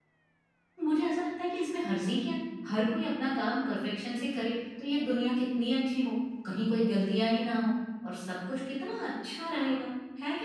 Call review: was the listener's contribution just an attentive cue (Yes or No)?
Yes